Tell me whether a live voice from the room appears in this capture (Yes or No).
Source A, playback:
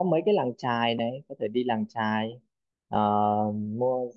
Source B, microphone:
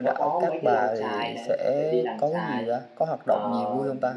Yes